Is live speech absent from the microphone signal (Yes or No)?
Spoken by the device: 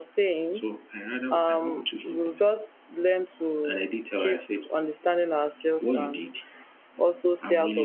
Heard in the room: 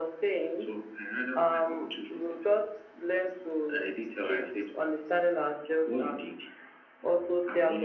Yes